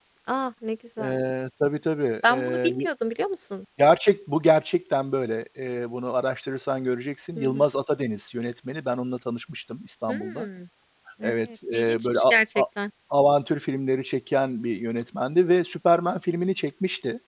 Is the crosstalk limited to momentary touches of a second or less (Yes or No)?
No